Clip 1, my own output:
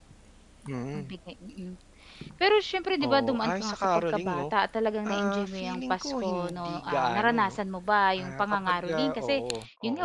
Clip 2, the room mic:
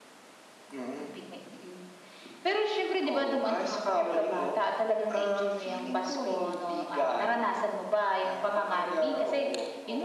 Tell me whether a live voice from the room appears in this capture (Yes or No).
No